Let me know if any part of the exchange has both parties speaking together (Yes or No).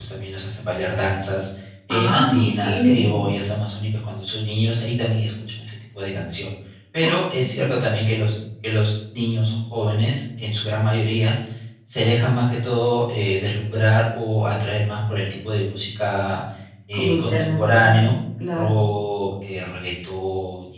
Yes